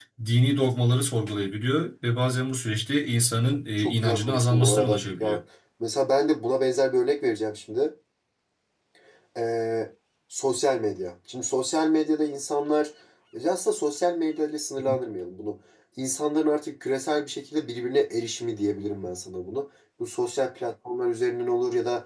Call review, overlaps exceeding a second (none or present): present